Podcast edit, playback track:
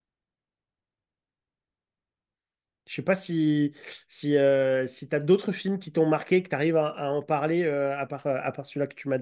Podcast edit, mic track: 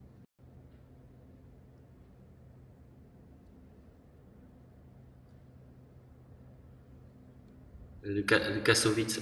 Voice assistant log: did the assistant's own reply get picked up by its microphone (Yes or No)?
No